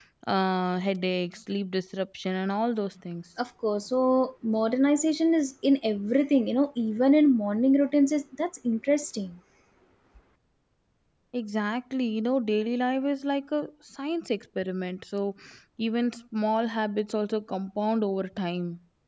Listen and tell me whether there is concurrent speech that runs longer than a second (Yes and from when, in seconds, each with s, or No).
No